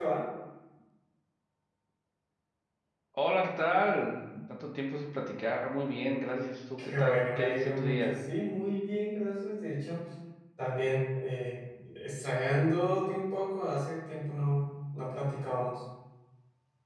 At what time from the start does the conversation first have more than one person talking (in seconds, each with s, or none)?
6.8 s